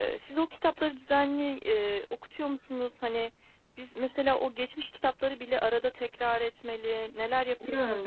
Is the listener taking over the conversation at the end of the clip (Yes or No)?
Yes